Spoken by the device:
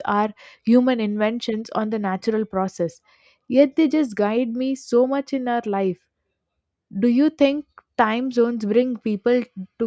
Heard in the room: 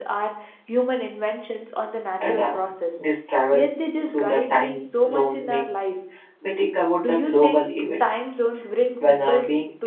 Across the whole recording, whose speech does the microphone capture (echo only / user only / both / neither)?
both